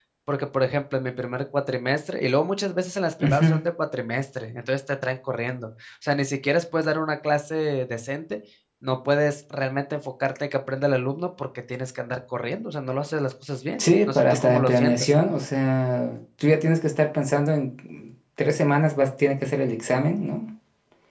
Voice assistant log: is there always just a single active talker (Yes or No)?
No